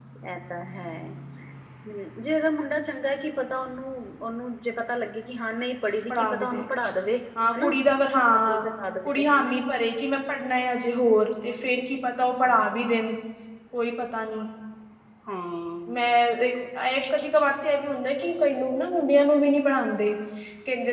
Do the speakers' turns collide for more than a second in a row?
No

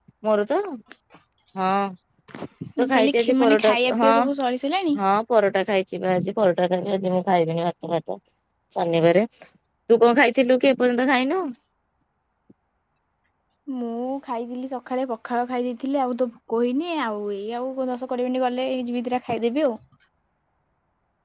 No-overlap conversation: No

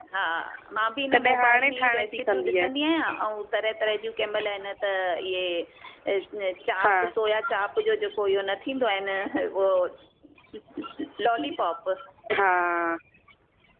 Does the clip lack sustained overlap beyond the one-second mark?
No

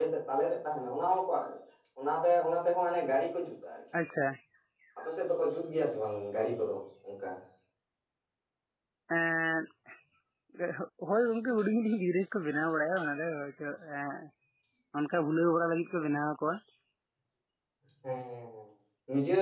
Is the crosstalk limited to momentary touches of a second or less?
Yes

